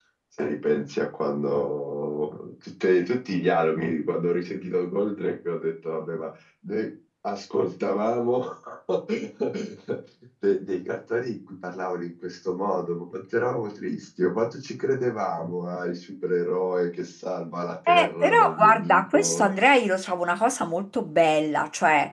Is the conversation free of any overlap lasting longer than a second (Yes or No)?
No